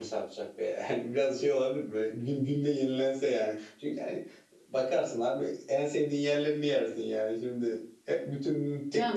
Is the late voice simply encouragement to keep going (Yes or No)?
No